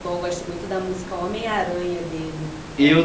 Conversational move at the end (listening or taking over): taking over